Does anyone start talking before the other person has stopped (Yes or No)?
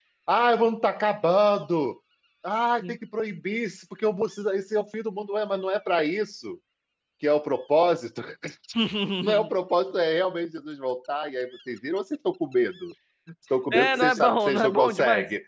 Yes